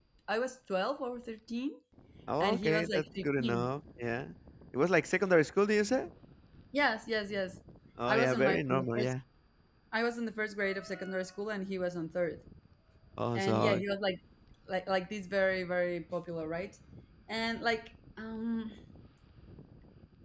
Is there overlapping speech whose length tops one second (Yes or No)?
Yes